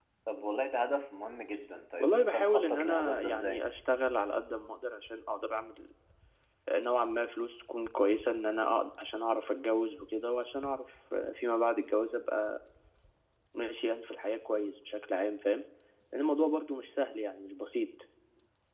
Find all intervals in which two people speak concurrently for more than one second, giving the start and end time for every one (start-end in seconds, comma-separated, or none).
2.0-3.6